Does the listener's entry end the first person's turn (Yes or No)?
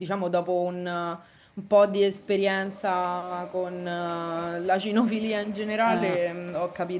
No